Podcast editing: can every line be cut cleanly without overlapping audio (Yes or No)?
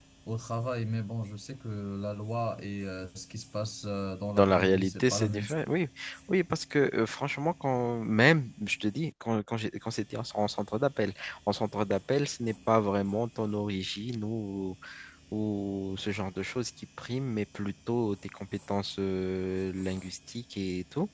No